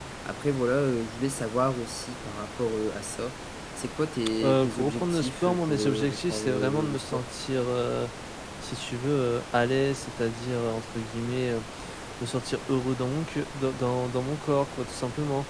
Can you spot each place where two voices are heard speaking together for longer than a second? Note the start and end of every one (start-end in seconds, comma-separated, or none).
4.4-7.2